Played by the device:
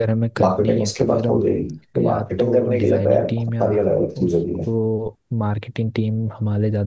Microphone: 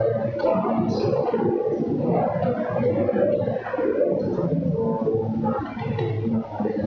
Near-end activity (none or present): none